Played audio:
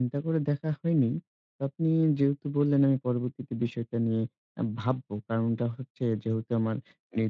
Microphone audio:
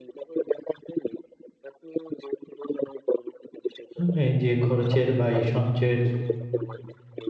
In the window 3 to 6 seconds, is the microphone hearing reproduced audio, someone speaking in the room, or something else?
both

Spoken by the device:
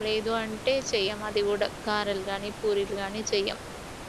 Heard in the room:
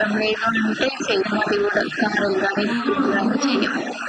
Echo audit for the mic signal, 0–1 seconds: echo only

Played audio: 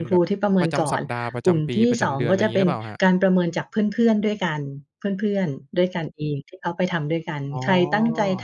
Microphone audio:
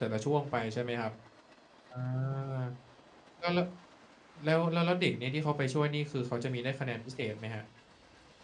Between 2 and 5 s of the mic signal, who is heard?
user only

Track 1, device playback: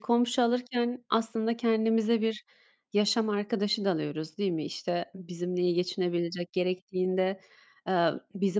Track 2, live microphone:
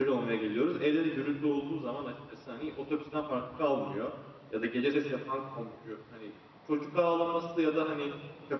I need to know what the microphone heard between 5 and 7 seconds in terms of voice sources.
user only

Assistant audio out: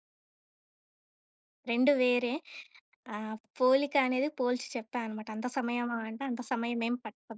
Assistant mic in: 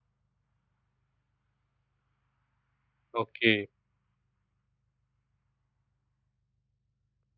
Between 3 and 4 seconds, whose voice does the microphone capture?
user only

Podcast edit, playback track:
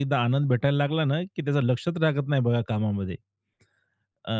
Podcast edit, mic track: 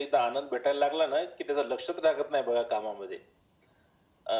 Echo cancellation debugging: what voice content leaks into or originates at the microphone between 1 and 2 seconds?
echo only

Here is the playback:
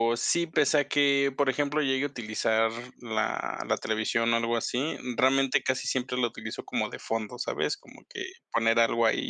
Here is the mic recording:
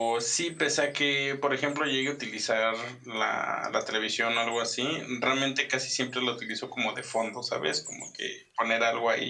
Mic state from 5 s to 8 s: echo only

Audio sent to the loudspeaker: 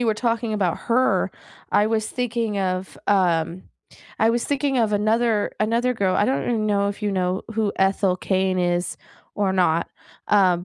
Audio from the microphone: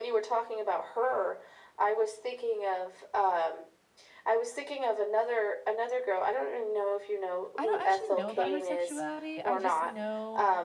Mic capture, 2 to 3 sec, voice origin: echo only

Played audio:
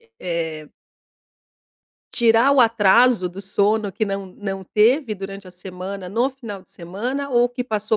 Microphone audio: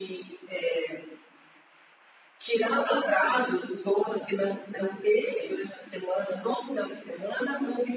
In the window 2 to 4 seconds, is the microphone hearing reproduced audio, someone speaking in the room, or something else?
echo only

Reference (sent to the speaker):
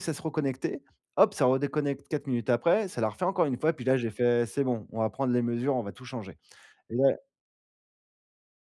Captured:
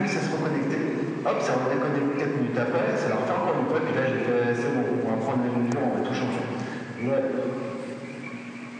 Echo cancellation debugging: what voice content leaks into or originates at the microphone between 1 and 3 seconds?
echo only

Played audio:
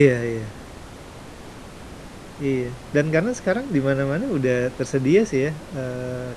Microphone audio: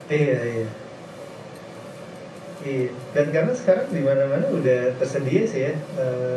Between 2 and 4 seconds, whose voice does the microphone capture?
echo only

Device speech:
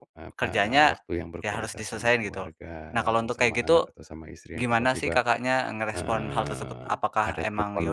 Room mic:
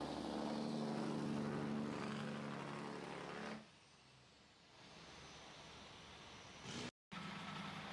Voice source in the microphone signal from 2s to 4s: neither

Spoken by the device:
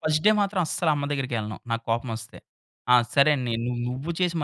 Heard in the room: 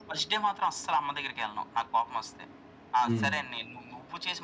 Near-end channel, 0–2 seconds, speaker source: echo only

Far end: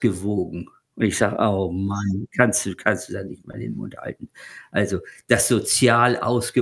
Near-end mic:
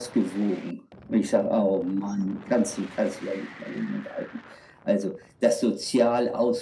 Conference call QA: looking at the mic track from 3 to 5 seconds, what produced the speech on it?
echo only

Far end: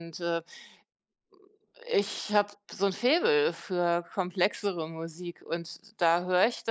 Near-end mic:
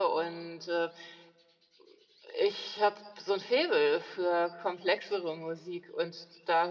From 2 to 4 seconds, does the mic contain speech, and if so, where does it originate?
echo only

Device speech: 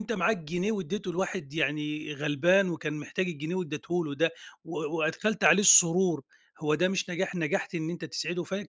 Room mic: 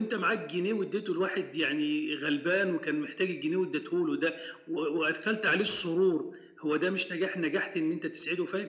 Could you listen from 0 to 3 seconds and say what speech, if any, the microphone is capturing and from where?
echo only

